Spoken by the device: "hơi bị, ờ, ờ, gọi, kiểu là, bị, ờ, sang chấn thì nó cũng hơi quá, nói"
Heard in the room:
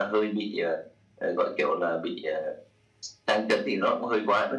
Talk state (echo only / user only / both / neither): echo only